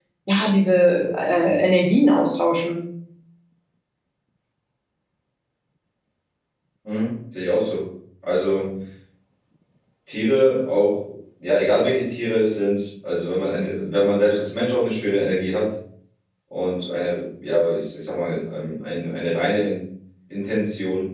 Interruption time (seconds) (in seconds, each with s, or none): none